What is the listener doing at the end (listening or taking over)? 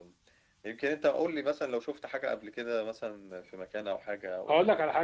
taking over